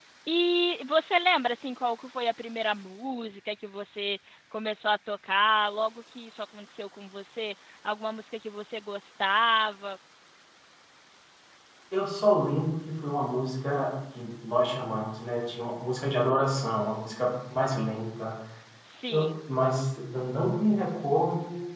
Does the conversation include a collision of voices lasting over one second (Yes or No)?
No